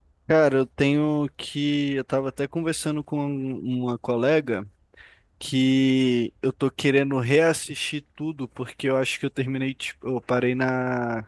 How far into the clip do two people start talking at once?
none

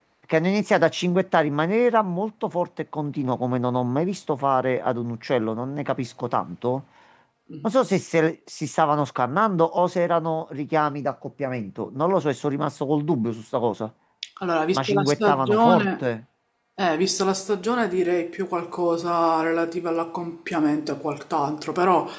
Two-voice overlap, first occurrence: 14.7 s

